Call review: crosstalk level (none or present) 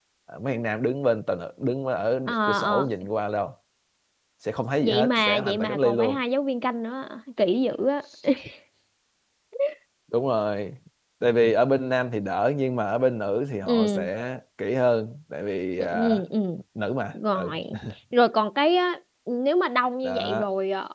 present